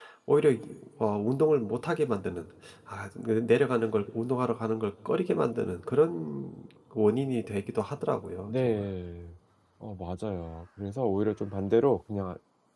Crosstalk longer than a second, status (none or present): none